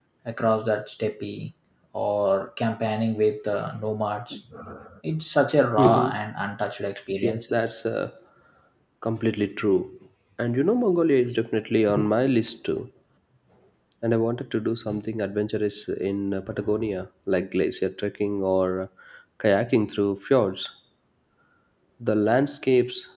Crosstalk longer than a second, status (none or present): none